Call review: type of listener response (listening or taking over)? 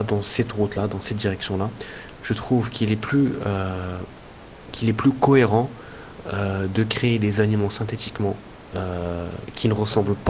listening